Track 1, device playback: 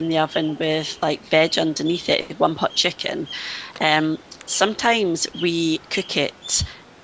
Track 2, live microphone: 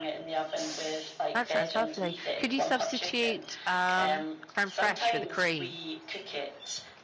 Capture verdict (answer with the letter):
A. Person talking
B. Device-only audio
A